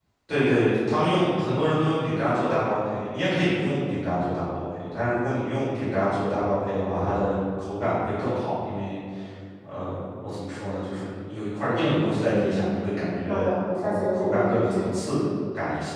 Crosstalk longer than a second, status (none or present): present